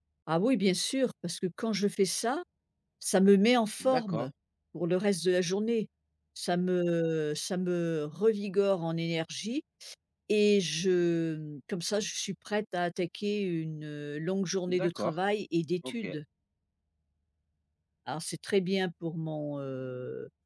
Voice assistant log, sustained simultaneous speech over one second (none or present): none